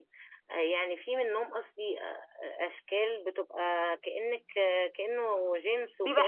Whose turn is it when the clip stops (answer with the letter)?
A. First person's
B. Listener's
B